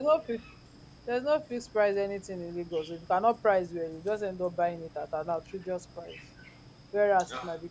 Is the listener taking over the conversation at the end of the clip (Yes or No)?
No